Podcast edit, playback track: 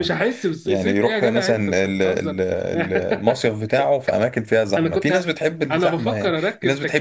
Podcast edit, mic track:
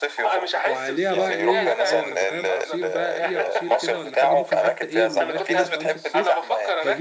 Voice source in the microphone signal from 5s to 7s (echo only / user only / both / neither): both